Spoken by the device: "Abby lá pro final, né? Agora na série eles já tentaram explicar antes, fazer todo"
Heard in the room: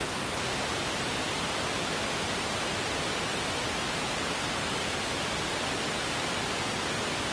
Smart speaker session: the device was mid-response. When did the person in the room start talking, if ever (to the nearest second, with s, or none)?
none